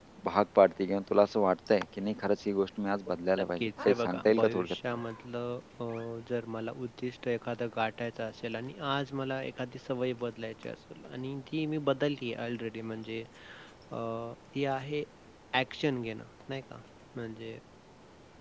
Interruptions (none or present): present